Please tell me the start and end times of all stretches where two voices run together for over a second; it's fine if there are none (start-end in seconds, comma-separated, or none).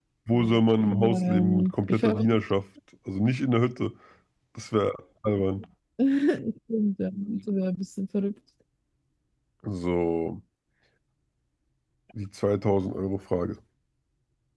0.9-2.3